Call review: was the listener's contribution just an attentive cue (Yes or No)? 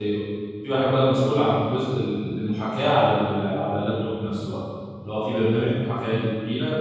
Yes